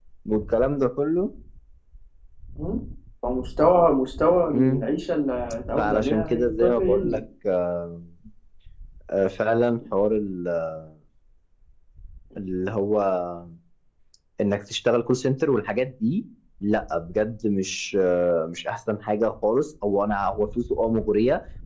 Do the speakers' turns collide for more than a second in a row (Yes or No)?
Yes